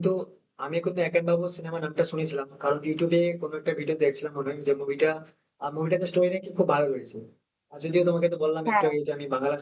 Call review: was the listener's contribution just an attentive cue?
Yes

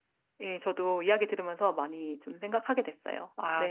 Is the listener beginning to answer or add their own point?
Yes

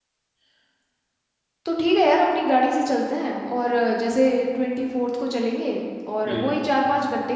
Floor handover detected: No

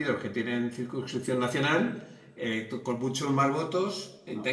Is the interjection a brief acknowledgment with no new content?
Yes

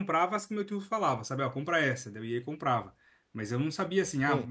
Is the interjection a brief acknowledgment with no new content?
Yes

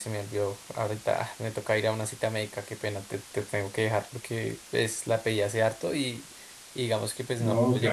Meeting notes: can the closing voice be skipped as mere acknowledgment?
No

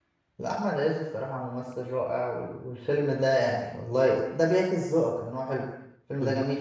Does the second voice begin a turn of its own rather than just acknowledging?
Yes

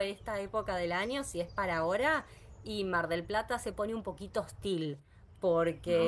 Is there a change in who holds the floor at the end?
No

